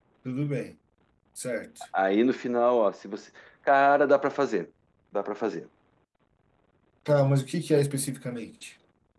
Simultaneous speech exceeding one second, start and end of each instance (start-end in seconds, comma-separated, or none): none